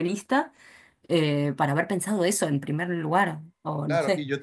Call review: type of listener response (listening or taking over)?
taking over